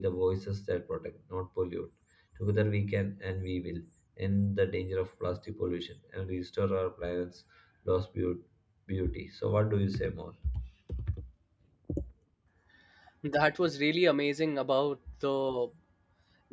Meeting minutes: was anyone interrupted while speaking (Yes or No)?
No